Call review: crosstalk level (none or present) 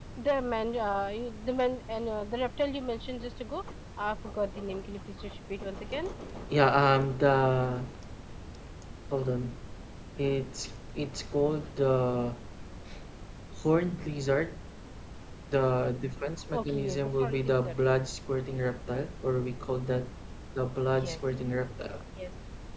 present